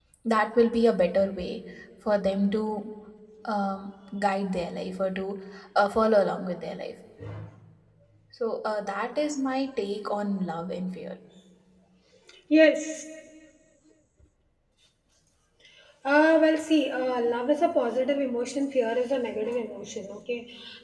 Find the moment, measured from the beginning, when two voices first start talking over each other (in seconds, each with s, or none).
none